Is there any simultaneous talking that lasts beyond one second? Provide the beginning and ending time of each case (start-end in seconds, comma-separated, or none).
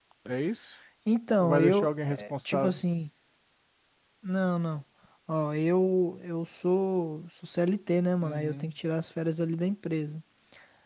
1.4-2.8